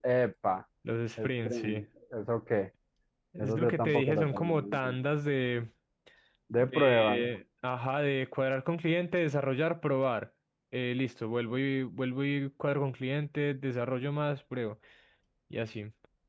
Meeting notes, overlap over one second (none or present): present